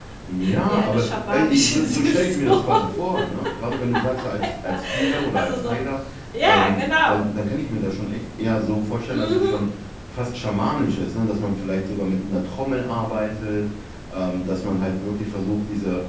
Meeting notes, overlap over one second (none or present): present